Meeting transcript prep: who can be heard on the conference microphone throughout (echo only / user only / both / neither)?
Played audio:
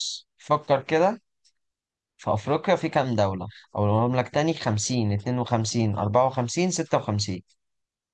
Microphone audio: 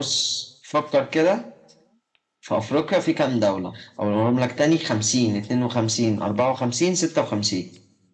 echo only